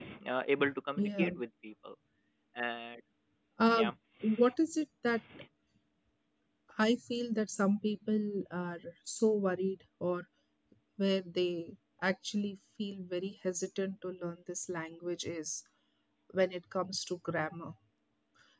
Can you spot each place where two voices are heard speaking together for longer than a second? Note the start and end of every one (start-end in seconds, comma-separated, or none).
none